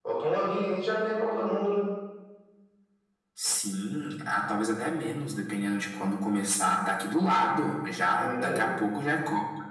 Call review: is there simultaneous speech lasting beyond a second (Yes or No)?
No